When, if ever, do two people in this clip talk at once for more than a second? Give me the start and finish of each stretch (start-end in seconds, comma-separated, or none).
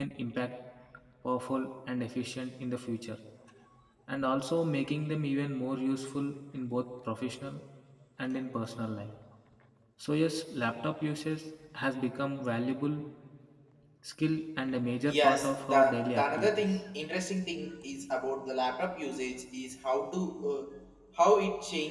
15.0-16.8